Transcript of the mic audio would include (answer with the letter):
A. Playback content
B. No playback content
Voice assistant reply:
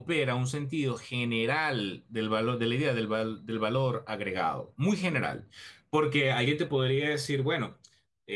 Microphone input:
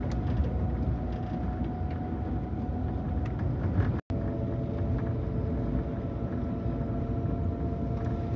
B